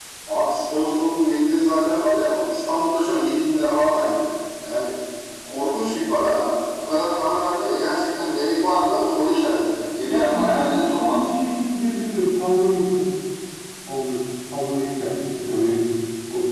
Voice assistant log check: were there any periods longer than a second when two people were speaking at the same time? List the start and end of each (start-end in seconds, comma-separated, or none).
10.1-11.2